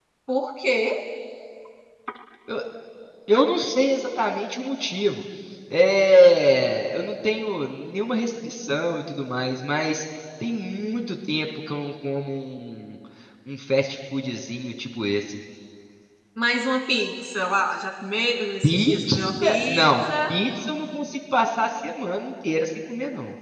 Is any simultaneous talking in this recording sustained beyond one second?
Yes, from 18.6 s

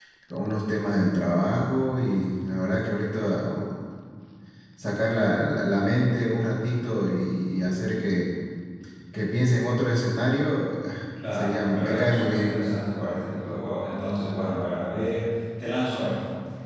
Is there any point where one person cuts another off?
Yes, from 11.2 s

